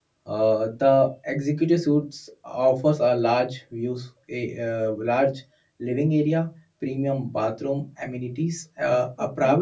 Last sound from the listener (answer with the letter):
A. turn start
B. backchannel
B